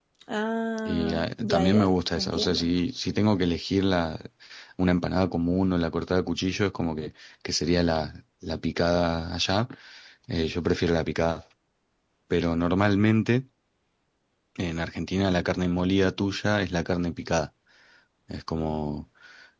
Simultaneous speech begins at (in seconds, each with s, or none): 0.8 s